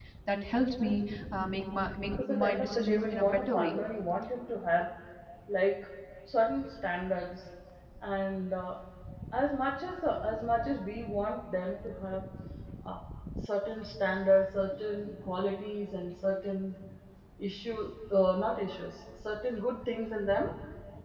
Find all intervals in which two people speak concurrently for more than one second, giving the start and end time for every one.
2.3-3.7

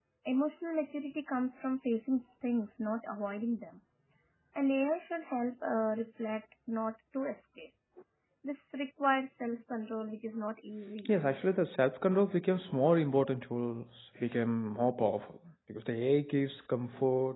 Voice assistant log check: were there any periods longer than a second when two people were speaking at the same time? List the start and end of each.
none

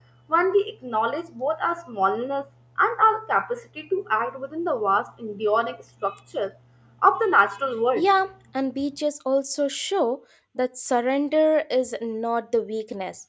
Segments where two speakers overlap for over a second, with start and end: none

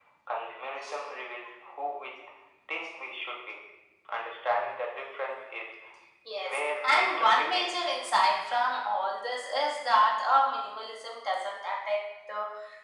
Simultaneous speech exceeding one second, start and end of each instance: 6.4-7.8

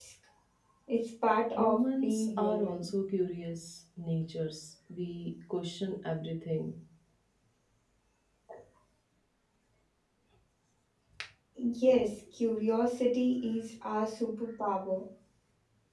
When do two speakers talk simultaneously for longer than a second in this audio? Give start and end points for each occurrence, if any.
1.6-2.9

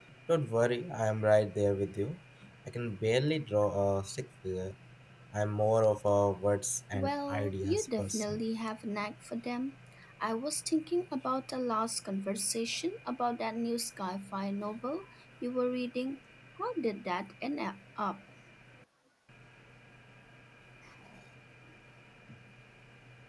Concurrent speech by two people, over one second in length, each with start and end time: 6.9-8.4

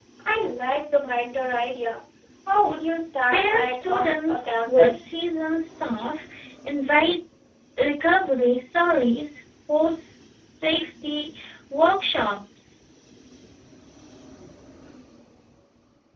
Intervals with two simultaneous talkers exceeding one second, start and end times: 3.3-5.1

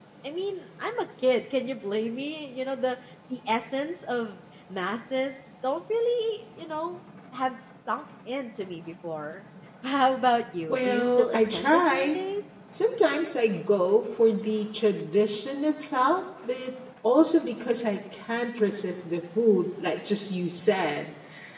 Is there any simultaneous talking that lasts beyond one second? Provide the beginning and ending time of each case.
10.7-12.2

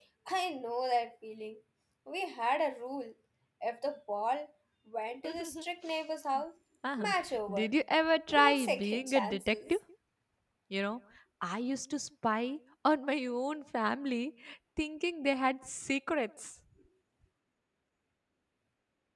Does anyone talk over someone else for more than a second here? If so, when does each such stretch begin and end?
8.3-9.8

